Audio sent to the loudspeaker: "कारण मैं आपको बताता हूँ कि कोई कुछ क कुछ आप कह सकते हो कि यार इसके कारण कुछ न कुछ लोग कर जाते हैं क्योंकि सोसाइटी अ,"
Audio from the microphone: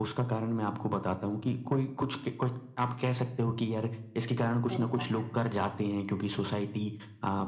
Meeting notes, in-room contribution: present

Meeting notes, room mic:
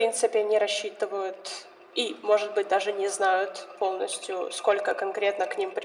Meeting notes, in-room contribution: none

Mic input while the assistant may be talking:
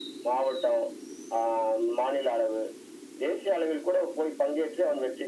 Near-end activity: none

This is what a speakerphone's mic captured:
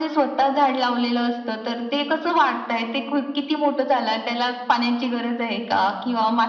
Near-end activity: none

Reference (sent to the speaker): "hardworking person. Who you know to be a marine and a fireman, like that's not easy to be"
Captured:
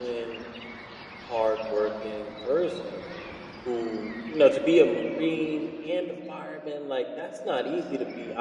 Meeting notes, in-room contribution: none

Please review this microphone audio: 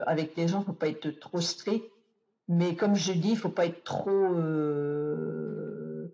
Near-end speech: none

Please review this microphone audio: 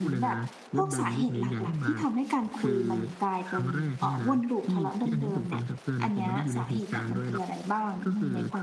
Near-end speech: present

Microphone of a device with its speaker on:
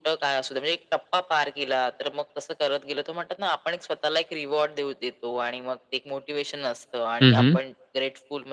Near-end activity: present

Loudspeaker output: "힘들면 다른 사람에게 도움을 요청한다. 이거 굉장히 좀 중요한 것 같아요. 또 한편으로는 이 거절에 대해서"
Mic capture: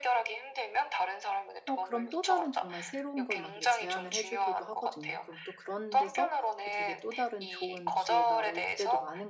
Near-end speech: present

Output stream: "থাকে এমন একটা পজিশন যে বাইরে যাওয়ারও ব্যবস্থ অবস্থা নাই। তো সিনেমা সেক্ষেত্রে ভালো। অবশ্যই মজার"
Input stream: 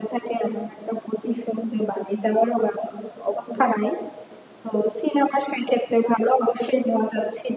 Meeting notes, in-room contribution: none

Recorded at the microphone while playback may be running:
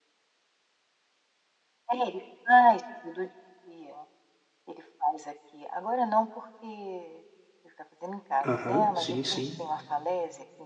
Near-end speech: present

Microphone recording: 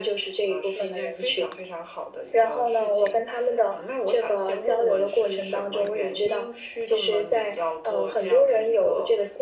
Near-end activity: none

